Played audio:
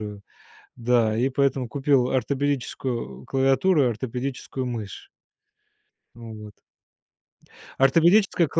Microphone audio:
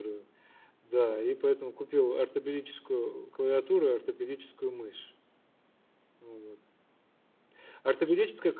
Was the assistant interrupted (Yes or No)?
No